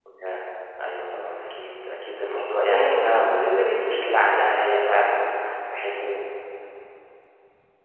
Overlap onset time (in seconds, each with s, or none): 2.3 s